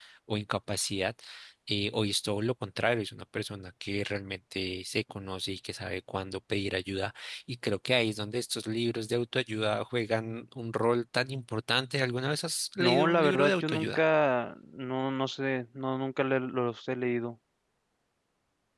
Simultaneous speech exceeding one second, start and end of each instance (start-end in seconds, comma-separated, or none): 12.8-14.0